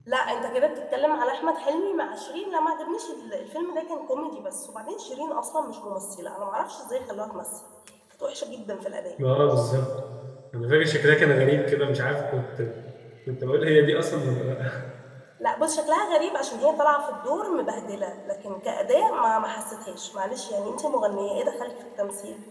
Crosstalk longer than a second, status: none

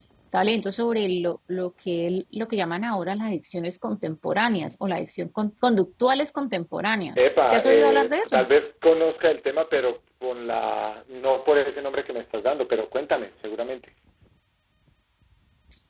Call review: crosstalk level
present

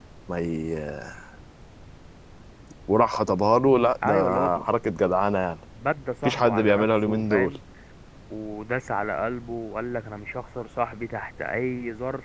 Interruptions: present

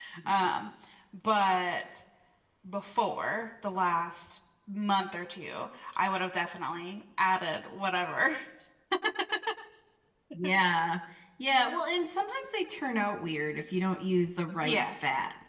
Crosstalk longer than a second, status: none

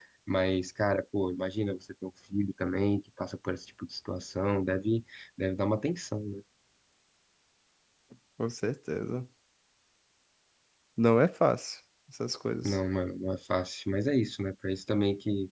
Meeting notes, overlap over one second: none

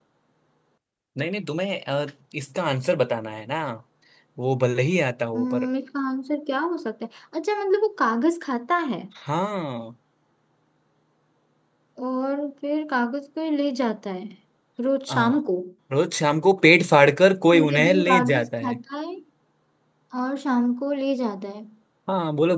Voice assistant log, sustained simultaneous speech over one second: present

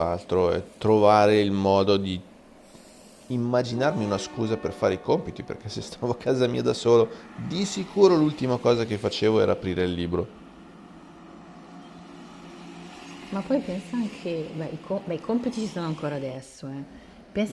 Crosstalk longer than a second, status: none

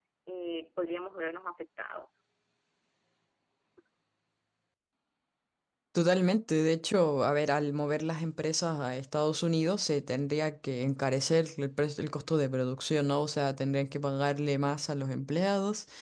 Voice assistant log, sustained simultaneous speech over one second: none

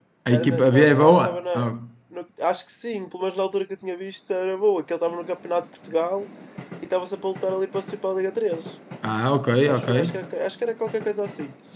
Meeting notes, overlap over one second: present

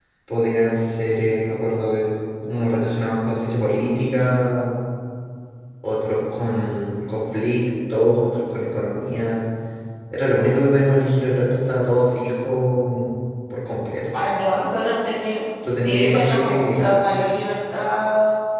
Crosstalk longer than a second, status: present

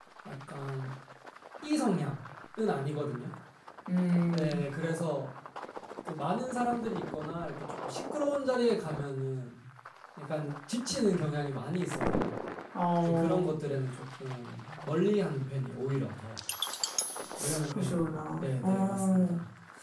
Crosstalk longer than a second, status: present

